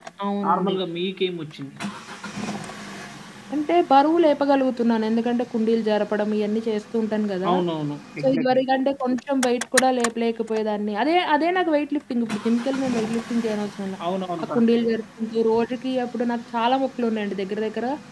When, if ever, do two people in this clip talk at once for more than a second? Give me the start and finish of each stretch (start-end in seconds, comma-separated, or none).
none